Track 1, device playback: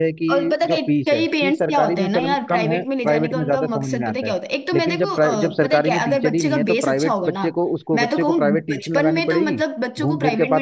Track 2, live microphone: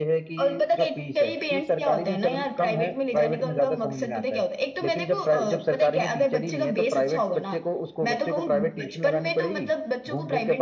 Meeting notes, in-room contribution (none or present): none